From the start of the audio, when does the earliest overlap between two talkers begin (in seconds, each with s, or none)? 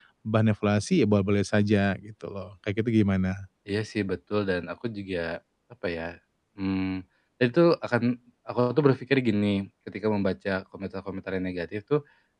none